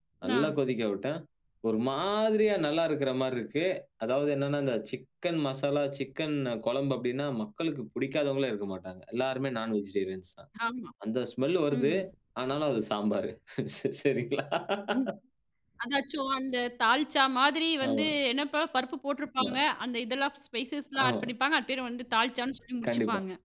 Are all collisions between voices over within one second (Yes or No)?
Yes